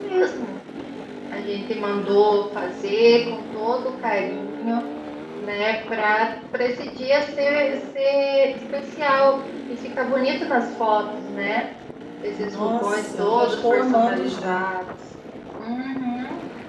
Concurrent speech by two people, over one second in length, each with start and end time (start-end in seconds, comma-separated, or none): 12.4-14.6